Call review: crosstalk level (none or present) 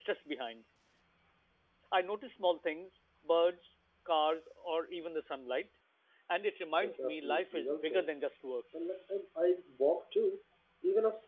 present